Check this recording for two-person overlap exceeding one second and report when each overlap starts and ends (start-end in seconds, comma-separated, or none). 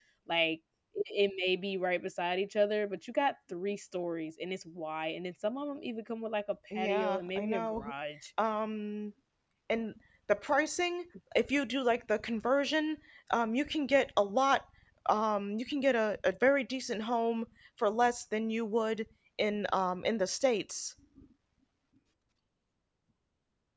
6.7-7.9